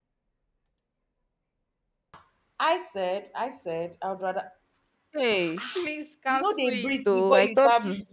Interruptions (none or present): present